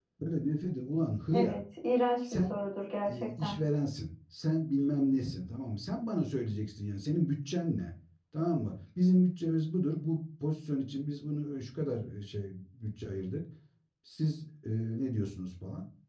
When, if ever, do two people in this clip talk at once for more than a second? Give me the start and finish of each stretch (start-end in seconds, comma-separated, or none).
none